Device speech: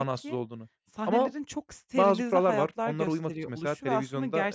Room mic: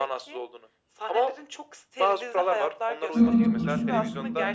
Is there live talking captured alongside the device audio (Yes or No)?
Yes